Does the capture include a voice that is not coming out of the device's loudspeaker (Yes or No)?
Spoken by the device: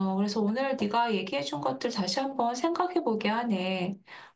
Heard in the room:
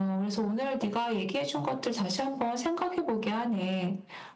No